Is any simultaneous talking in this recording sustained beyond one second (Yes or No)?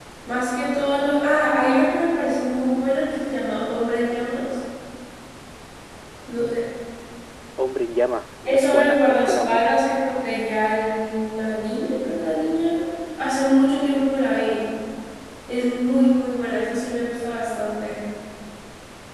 Yes